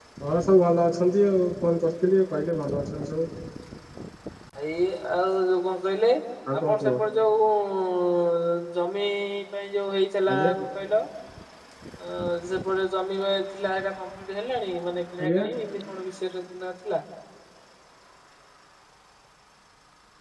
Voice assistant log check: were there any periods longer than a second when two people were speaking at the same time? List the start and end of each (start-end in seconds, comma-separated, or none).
none